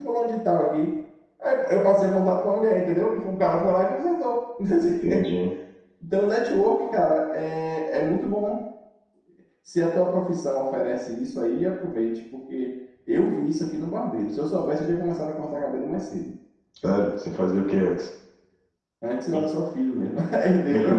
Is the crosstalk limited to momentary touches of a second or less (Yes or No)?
Yes